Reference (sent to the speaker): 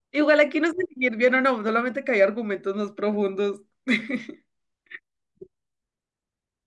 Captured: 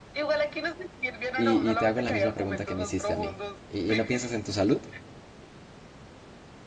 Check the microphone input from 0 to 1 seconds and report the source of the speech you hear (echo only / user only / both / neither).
echo only